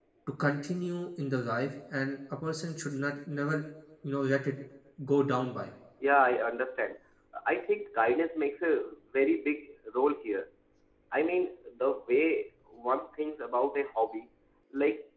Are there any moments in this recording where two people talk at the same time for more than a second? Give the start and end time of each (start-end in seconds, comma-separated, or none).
none